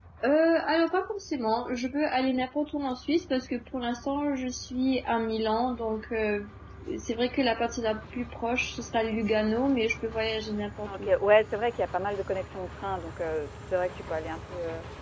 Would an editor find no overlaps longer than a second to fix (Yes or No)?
Yes